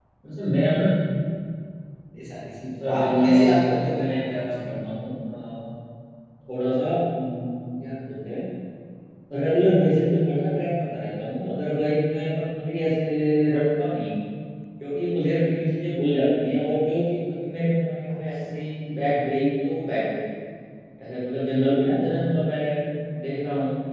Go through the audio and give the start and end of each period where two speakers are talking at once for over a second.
2.9-4.7

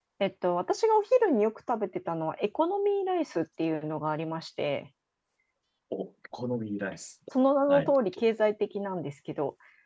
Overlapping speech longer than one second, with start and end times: none

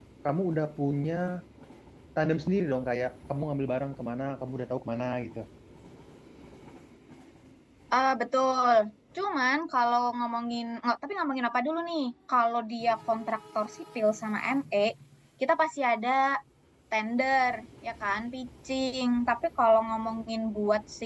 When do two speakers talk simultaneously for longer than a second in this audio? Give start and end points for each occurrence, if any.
none

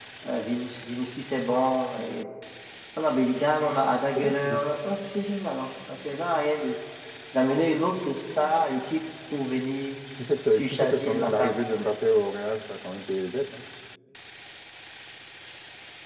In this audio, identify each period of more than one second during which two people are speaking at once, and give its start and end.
10.5-11.8

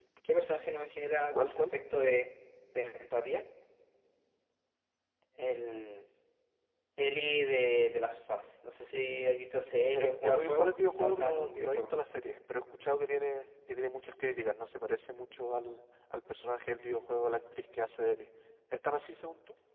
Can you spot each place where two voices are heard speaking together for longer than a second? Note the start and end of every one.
9.9-11.9

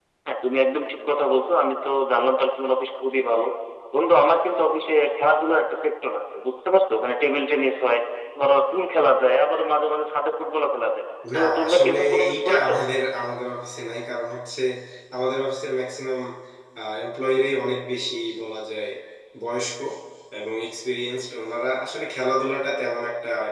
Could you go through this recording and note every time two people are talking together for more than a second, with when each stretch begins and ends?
11.3-12.7

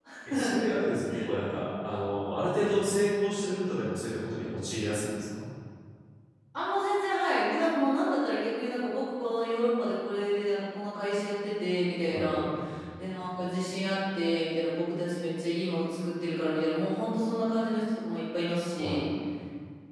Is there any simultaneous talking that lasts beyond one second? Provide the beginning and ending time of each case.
none

